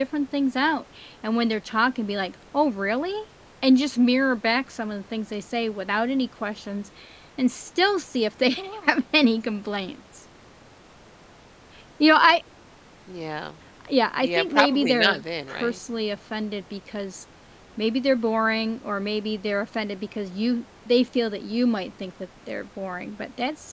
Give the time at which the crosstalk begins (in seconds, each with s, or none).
14.2 s